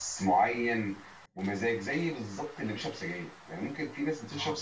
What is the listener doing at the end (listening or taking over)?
listening